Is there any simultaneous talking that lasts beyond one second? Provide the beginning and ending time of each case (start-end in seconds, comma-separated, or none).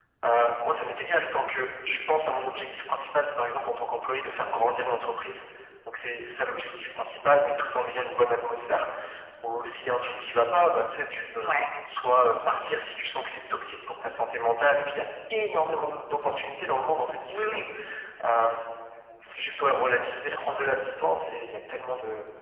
none